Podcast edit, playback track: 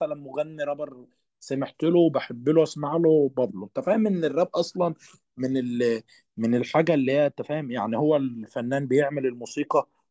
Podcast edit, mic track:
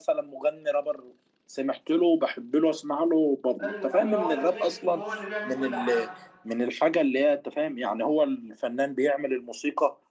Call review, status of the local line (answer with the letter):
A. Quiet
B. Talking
B